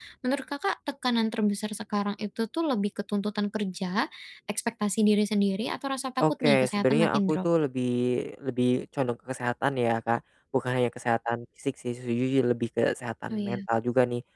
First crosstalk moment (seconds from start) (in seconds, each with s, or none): 6.2 s